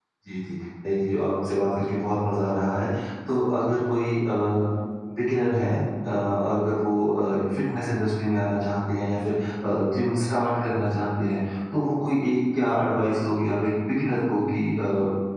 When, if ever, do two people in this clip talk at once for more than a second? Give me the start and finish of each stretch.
none

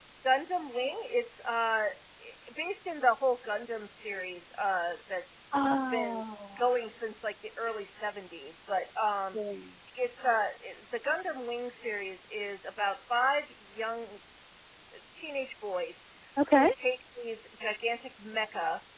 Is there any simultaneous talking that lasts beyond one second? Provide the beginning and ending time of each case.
none

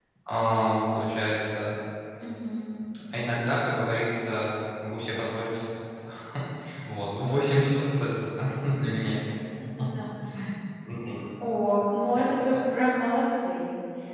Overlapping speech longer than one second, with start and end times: none

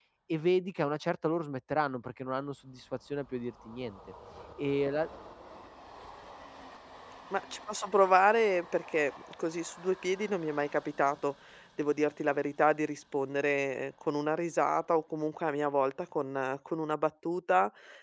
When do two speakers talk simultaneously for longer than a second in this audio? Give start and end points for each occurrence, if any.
none

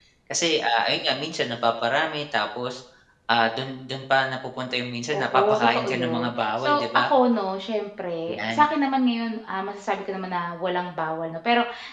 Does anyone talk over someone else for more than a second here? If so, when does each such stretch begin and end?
5.1-7.1

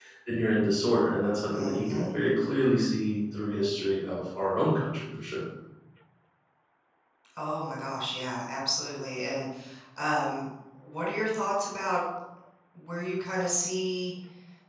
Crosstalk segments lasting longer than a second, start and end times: none

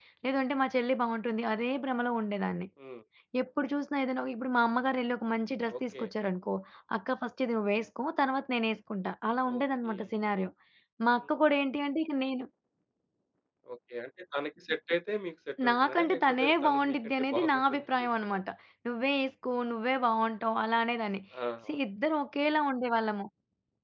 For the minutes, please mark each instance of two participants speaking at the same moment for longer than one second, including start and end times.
15.7-18.4

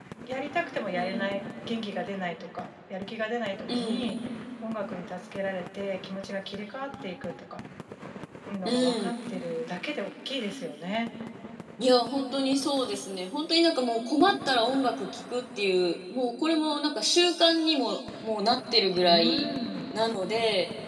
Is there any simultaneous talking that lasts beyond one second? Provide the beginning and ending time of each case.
none

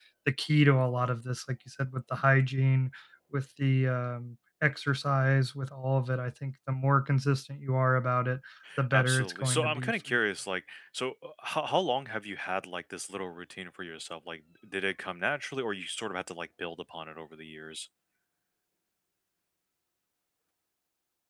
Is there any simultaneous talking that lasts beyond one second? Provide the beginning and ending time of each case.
8.9-10.2

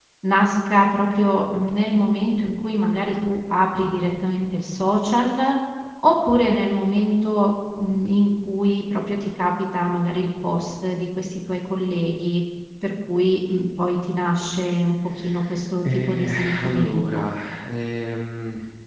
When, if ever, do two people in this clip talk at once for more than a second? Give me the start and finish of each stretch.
16.1-17.3

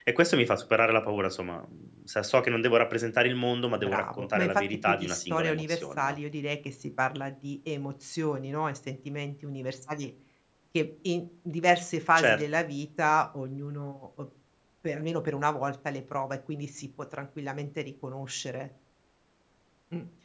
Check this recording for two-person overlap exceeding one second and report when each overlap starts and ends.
3.7-6.2

